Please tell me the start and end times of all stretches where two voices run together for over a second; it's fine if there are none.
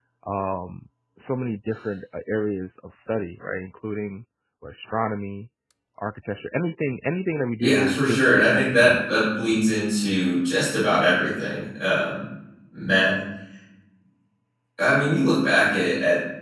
7.6-9.0

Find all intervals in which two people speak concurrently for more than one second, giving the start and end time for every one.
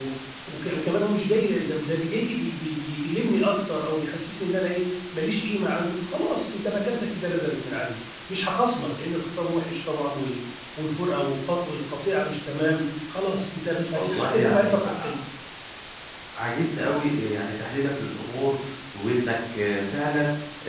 13.9-15.2

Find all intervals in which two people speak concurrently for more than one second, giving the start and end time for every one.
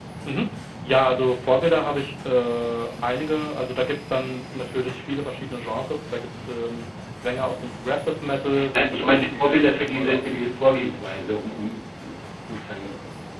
8.7-10.2

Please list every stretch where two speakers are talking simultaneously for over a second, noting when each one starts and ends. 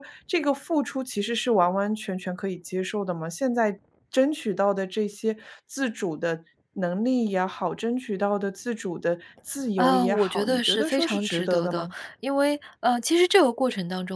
9.8-11.9

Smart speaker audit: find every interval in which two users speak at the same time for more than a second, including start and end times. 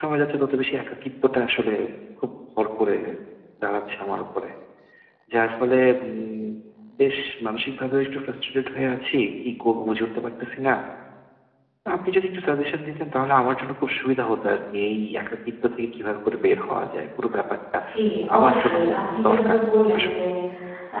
18.4-19.6

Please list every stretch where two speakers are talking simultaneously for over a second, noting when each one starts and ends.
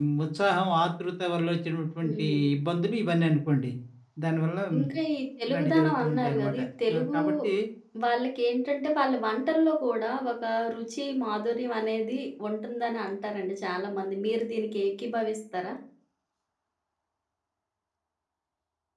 5.5-7.2

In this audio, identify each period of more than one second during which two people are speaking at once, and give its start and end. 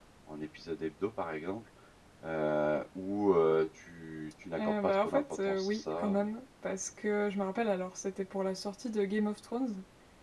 4.6-6.2

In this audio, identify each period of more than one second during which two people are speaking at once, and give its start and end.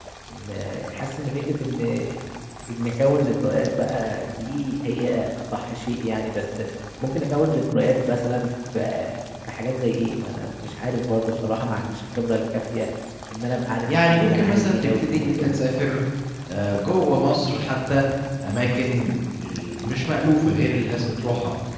13.8-15.6

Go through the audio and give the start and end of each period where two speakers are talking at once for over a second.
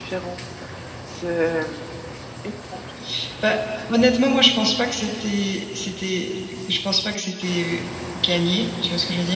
none

